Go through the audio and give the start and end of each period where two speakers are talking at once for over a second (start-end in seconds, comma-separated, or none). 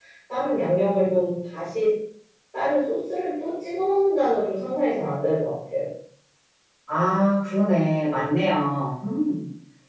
none